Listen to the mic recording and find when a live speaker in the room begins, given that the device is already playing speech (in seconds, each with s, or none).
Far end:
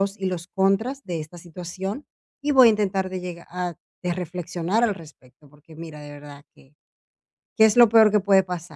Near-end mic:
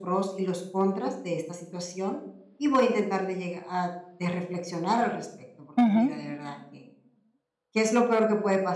5.8 s